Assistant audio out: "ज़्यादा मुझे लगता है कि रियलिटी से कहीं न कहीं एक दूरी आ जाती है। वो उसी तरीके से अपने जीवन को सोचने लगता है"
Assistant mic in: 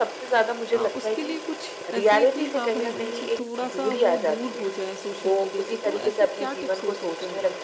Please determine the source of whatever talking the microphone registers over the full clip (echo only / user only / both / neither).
both